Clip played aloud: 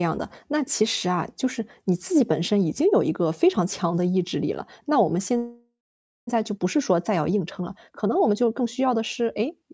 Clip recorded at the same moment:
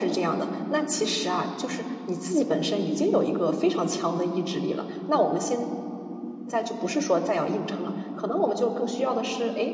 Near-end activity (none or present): none